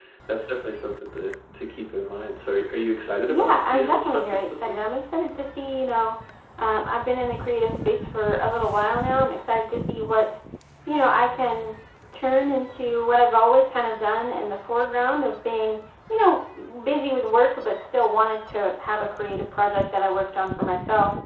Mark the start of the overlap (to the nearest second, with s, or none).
3 s